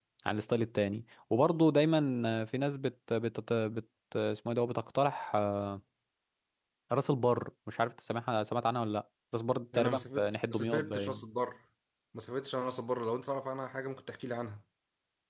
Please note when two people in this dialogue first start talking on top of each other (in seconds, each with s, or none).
9.7 s